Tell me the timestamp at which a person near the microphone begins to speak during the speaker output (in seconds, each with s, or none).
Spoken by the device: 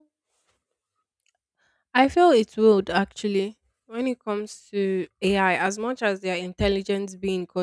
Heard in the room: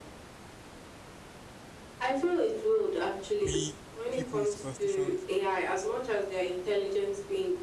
3.4 s